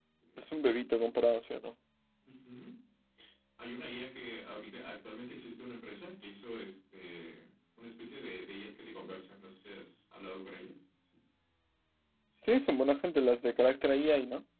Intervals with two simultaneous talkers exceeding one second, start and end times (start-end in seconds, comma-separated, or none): none